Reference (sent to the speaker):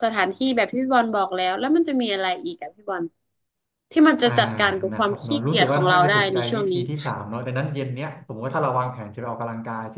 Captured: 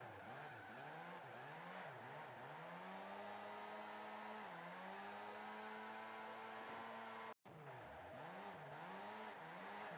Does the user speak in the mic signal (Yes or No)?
No